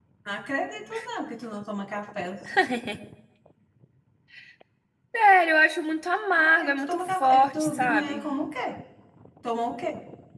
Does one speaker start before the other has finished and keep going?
Yes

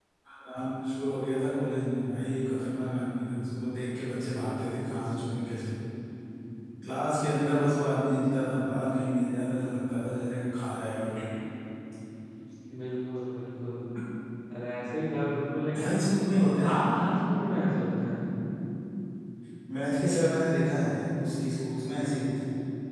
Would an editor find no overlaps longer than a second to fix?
Yes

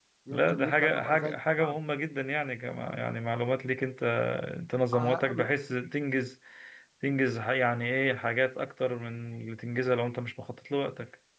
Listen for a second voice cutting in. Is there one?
Yes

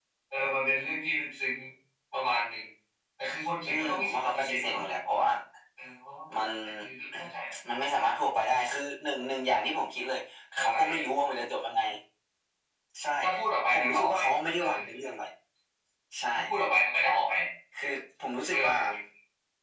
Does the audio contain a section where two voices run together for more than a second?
Yes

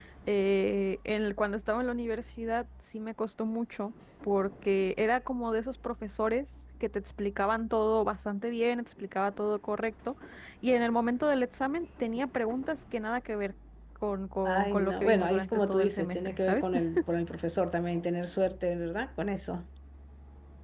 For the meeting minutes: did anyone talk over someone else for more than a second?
Yes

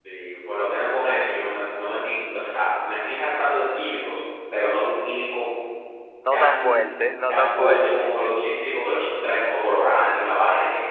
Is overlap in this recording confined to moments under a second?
No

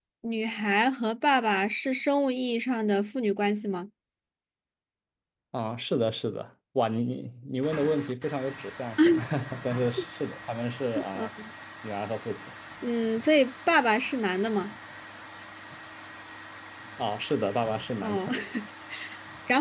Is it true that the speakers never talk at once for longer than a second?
Yes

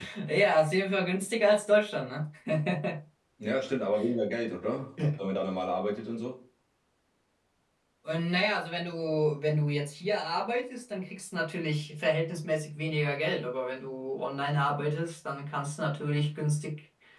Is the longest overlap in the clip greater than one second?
No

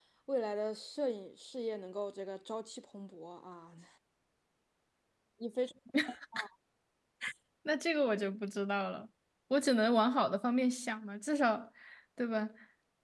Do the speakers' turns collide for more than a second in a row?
No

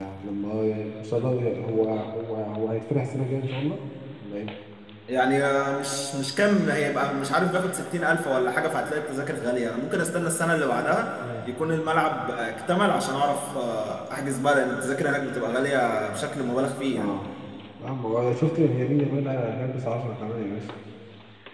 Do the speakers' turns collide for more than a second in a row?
No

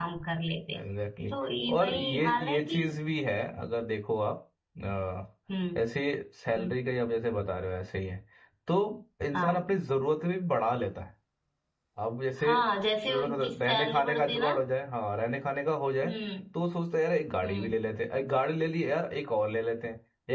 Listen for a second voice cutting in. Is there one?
Yes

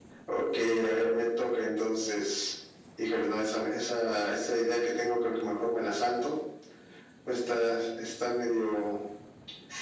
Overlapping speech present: No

